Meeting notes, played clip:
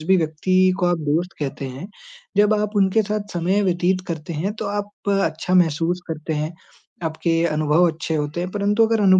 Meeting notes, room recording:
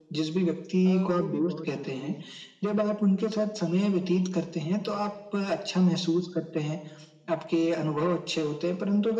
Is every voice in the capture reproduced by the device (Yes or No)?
No